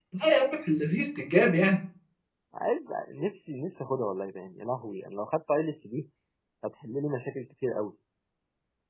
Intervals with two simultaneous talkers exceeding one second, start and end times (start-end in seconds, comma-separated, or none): none